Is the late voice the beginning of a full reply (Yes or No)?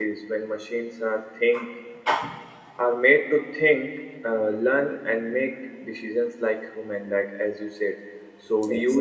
No